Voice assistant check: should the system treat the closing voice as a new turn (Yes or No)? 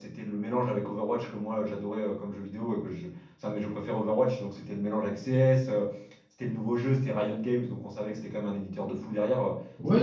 Yes